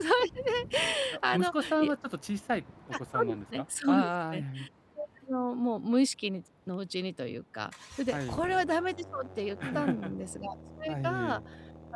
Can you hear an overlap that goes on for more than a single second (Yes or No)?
Yes